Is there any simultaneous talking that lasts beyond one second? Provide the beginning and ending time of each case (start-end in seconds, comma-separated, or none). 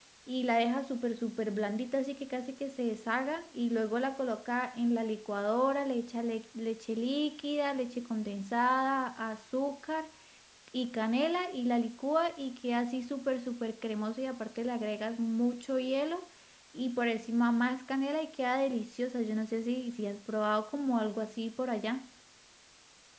none